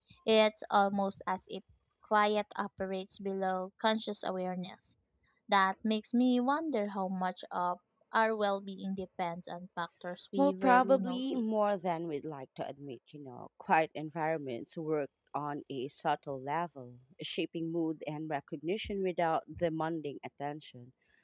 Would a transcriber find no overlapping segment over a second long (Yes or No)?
No